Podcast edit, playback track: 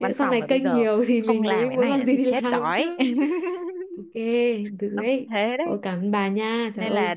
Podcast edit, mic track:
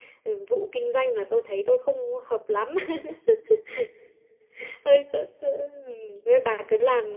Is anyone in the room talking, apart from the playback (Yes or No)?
Yes